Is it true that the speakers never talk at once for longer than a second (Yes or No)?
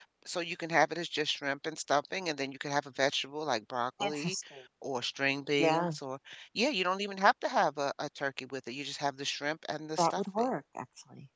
Yes